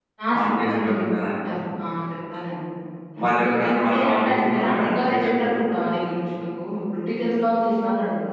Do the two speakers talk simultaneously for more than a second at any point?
Yes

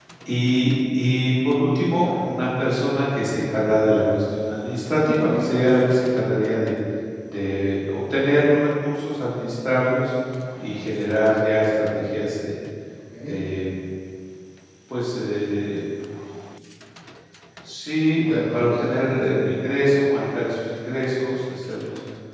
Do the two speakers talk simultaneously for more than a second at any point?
Yes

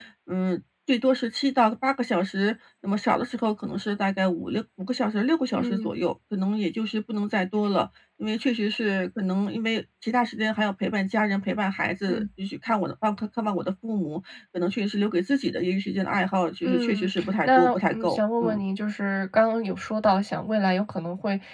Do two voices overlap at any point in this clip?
Yes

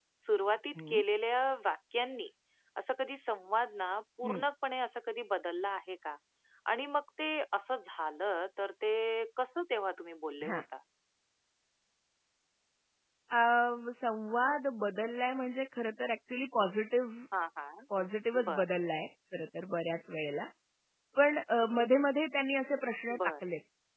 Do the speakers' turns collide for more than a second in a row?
No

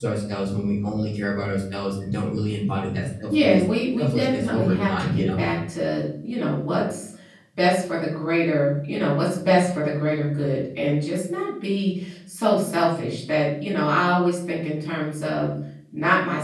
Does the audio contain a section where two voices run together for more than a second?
Yes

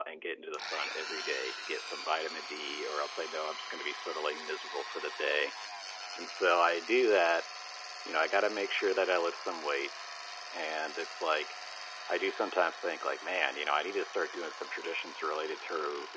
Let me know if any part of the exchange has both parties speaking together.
No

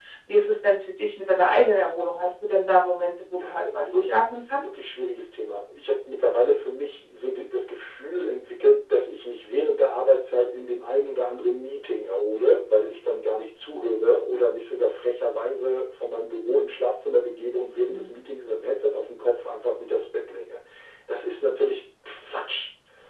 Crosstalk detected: Yes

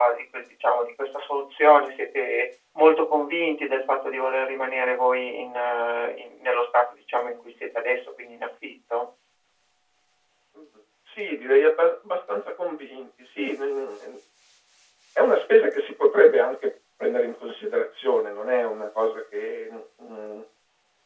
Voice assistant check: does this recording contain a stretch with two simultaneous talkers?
No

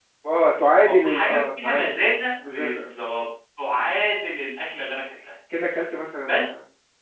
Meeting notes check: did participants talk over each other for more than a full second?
Yes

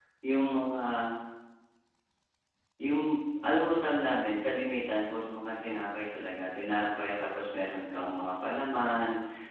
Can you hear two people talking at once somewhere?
No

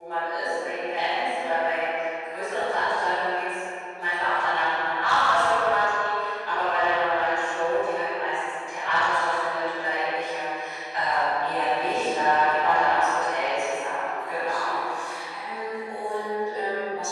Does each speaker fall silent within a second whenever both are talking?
No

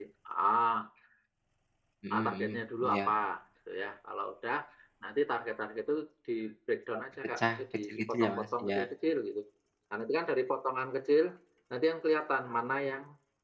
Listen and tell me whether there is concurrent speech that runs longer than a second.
Yes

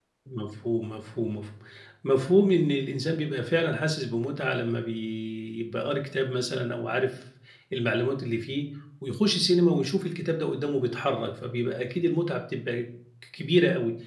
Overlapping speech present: No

